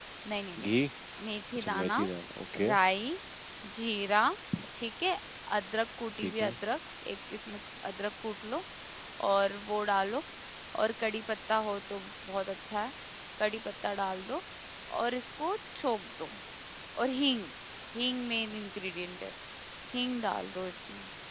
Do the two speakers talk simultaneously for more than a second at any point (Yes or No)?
No